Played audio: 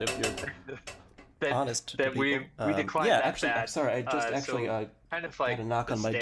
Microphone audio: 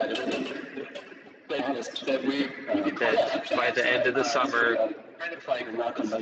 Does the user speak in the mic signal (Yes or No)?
Yes